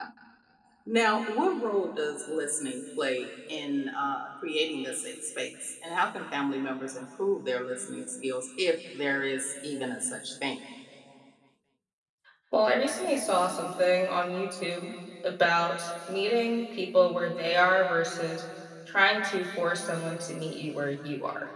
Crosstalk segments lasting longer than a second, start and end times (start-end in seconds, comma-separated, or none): none